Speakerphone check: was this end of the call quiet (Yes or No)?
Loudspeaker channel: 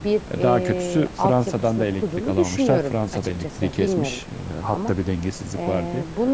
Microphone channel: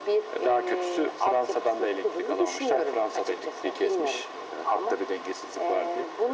Yes